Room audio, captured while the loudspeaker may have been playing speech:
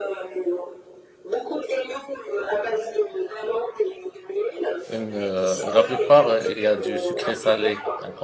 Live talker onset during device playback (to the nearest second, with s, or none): 5 s